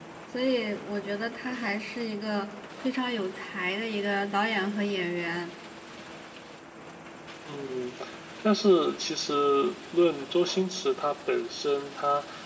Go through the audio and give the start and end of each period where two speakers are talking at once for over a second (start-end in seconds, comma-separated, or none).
none